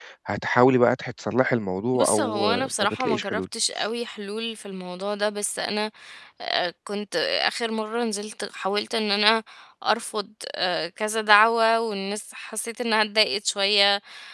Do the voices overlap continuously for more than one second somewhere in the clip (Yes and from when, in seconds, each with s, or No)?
Yes, from 2.0 s